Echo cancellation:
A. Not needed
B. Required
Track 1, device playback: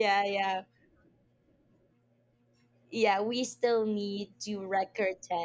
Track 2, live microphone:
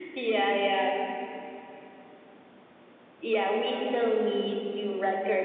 B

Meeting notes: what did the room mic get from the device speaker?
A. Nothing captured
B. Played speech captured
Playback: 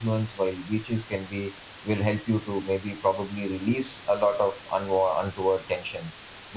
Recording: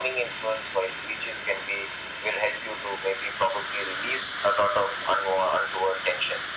B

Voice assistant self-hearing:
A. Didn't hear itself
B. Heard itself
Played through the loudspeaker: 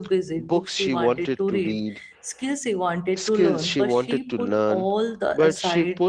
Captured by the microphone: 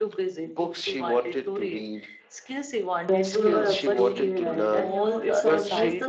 B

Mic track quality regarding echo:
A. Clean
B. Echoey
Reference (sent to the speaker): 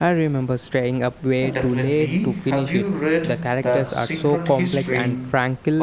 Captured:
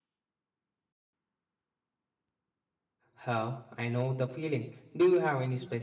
A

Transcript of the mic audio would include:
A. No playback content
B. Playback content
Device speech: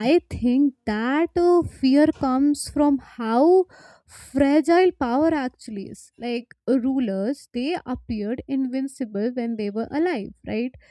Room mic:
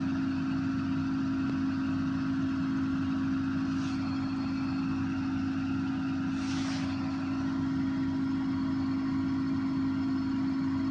A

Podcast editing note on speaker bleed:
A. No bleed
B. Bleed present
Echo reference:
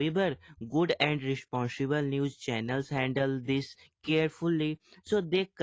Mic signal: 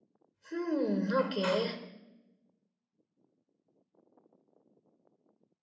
A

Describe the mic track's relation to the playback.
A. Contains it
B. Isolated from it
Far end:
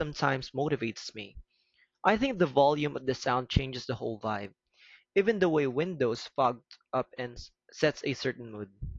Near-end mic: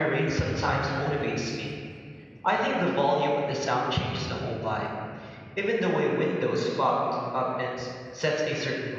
A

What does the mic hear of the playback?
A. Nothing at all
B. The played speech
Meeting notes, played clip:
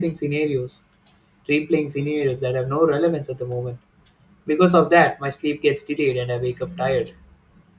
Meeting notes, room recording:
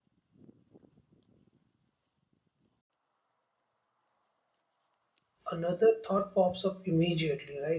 A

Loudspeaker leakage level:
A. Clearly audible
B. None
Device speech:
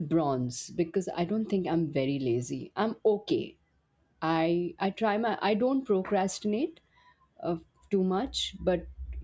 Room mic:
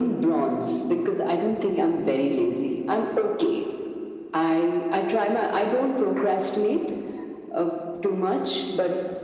A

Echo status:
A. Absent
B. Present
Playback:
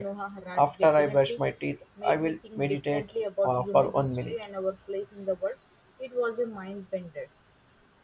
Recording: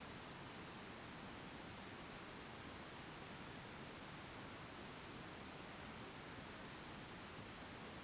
A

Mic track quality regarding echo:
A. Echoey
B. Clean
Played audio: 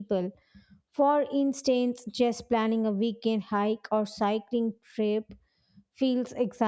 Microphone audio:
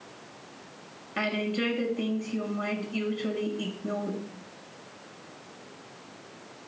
B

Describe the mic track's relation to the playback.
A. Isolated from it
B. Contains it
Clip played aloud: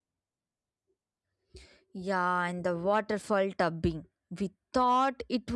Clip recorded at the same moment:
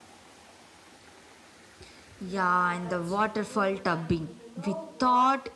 B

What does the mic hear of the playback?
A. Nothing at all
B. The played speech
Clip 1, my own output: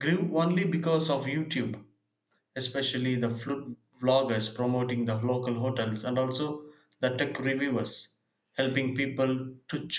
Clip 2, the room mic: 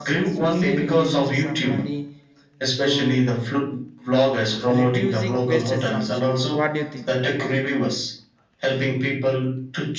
B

